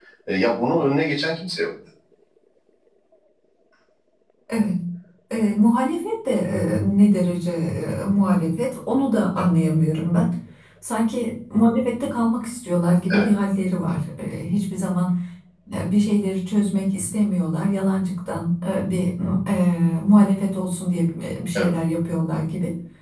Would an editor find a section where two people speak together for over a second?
No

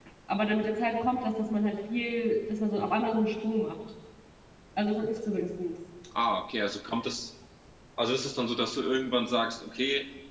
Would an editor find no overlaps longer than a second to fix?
Yes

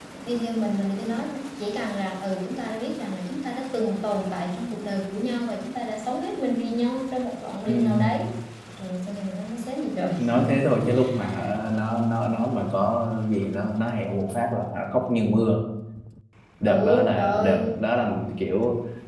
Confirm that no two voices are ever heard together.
No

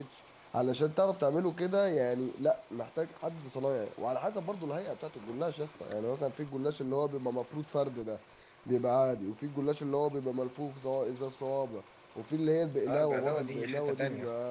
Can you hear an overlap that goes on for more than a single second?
Yes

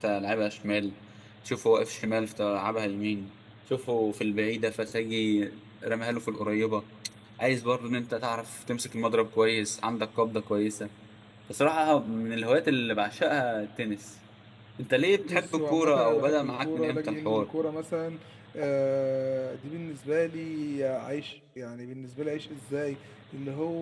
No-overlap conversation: No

